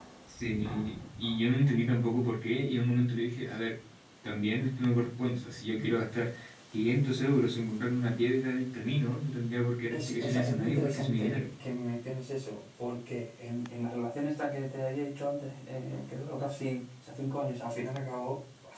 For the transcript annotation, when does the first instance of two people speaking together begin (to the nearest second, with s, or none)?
10 s